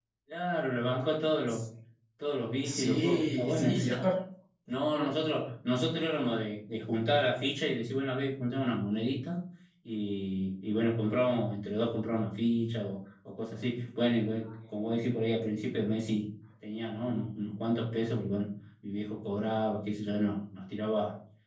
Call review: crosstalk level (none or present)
present